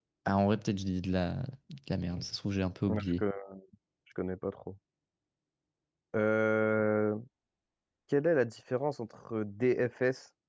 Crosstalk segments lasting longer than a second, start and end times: none

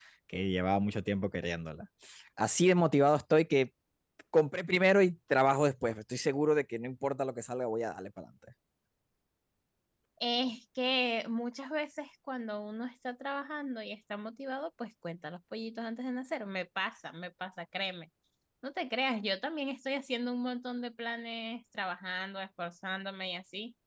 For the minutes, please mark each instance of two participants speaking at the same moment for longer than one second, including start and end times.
none

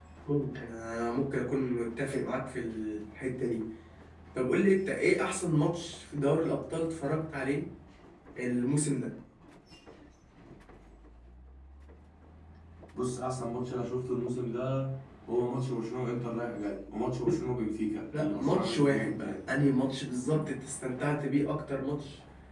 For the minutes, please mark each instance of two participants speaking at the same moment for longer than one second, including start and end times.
18.2-19.4

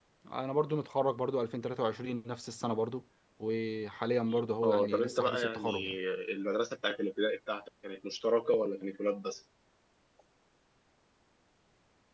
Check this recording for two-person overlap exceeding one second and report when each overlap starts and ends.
4.6-6.0

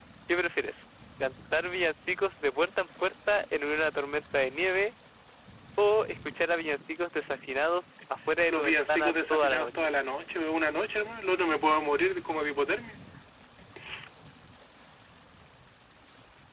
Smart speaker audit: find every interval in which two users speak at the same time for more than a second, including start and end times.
8.5-9.9

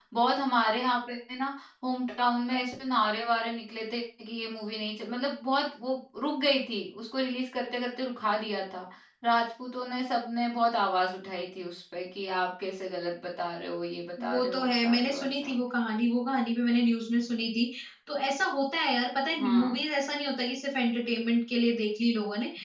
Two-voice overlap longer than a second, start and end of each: 14.2-15.6

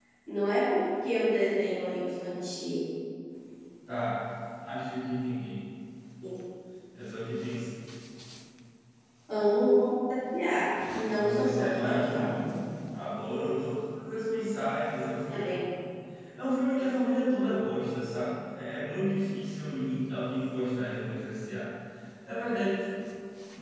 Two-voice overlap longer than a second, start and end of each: 11.2-12.4

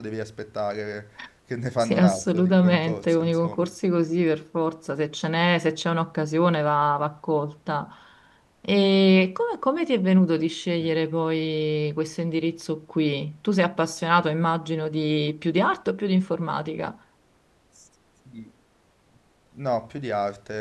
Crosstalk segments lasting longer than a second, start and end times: 1.8-3.7

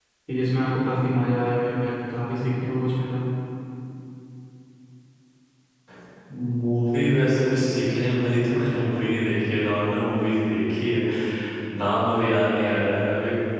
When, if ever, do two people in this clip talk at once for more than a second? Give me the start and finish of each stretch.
none

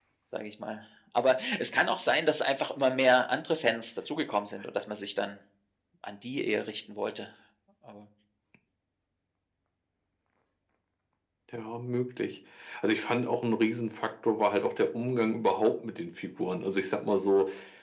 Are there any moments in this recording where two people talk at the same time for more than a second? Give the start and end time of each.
none

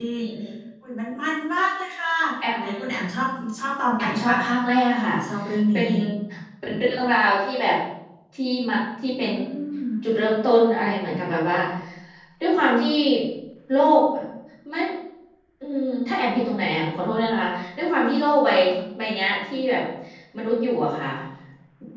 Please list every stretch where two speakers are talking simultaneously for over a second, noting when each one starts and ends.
none

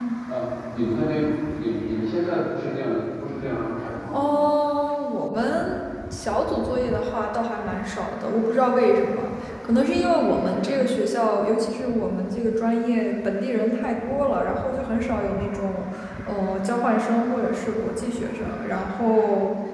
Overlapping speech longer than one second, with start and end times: none

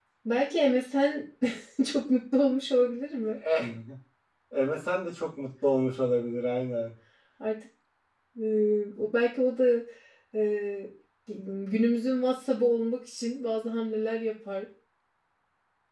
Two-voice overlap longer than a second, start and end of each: none

